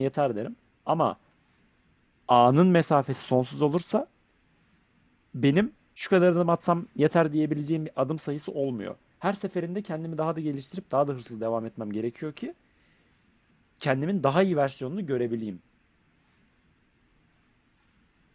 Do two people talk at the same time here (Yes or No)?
No